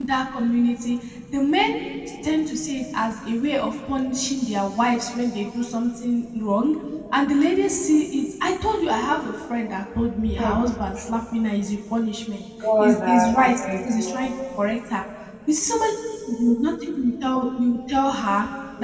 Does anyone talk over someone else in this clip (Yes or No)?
Yes